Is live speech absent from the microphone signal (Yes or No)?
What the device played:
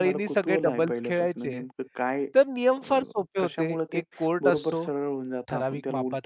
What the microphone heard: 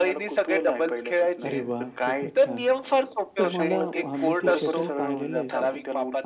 No